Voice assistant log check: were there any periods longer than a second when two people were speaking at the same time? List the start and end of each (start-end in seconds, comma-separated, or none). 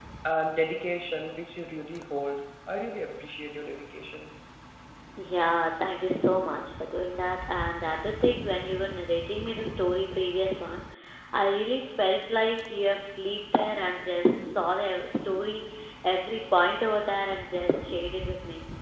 none